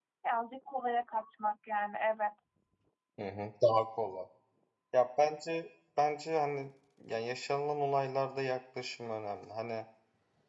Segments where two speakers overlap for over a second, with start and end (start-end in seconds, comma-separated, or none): none